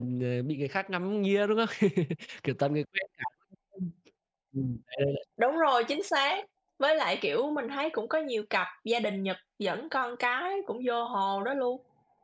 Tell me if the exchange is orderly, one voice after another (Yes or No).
Yes